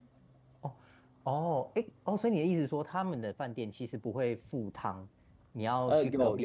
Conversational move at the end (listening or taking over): taking over